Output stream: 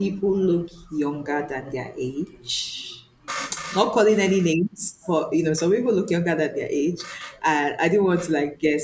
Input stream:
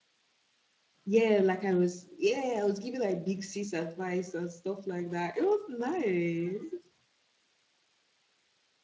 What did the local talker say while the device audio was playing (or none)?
yeah, like I was yeah I was giving like big sis advice and stuff like that. It was nice.